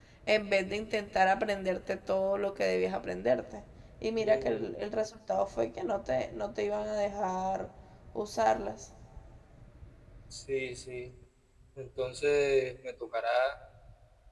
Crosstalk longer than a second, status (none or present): none